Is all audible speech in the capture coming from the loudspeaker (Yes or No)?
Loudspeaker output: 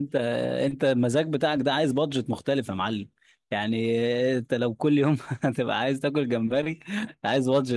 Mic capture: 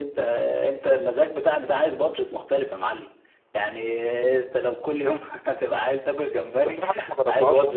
No